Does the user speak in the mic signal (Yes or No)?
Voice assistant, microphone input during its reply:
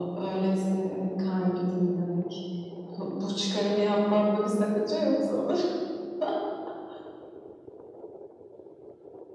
No